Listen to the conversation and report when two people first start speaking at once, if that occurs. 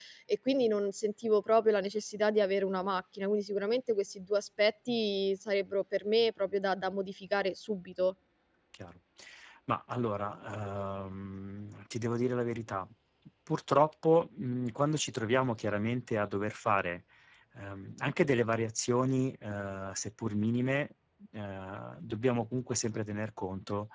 none

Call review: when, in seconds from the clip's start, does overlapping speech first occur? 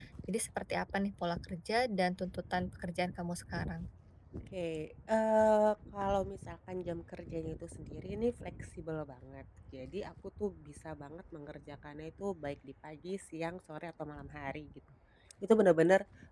none

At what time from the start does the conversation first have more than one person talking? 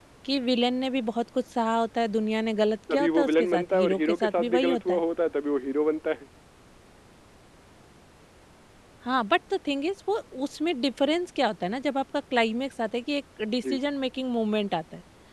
2.9 s

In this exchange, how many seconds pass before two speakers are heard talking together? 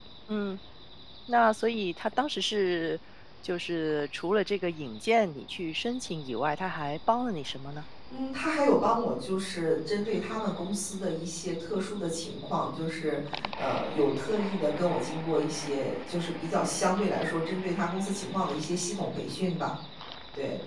none

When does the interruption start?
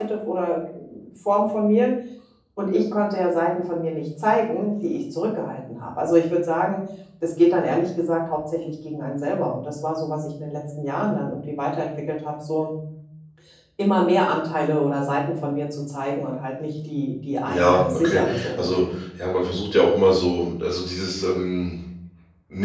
17.4 s

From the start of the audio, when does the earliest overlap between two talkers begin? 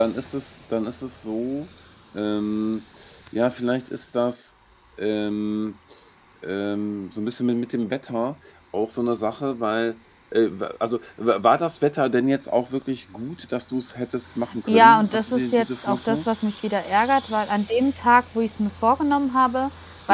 14.7 s

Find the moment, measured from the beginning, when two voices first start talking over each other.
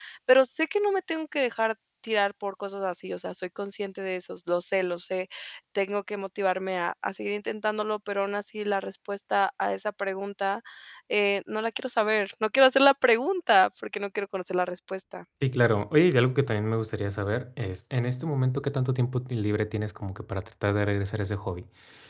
none

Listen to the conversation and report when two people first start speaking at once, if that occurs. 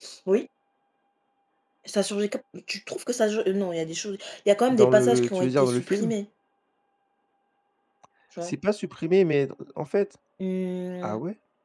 4.7 s

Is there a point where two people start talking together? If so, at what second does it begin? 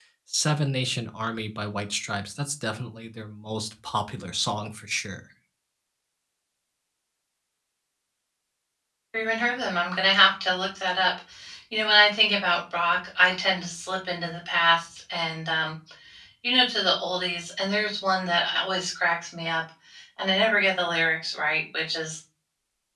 none

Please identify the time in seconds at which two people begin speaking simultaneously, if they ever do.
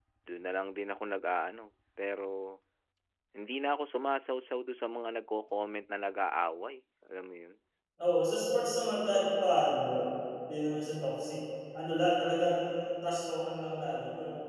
none

